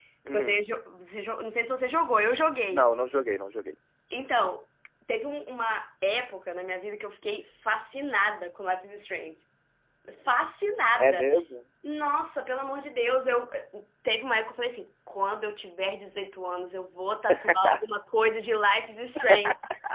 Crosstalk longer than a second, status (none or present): none